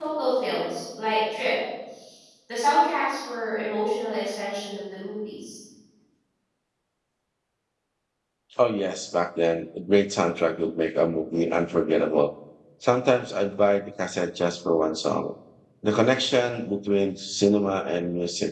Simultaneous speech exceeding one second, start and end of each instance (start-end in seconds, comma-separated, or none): none